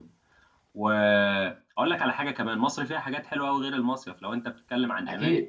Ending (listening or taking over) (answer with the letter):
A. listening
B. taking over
A